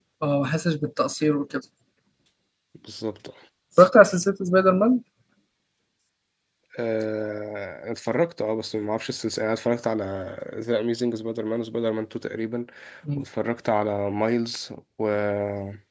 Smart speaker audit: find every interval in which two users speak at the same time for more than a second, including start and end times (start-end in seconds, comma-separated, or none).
none